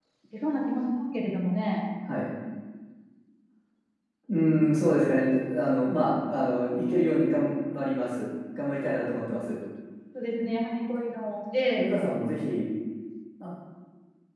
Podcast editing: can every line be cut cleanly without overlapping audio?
Yes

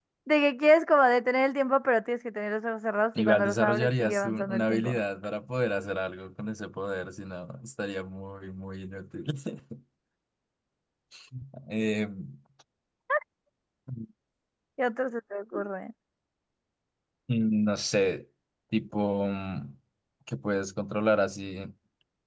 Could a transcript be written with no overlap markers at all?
No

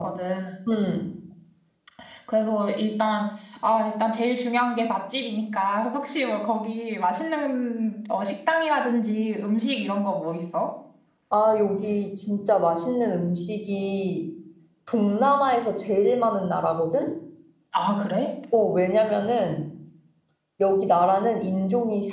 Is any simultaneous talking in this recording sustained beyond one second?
No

